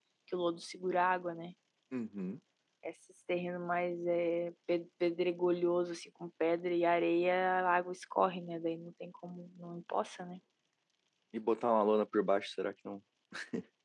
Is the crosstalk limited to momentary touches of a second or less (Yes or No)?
Yes